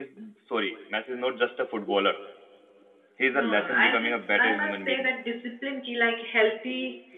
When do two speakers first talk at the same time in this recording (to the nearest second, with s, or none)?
3 s